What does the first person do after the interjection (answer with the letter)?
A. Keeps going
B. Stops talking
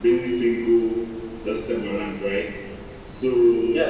B